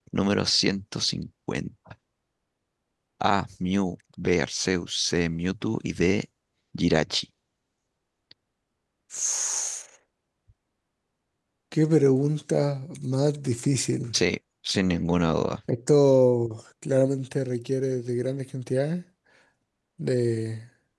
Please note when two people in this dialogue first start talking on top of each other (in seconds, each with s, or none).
none